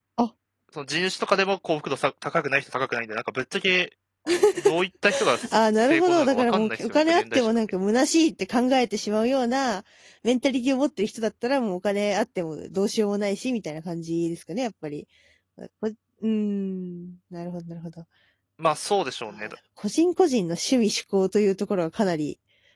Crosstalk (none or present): present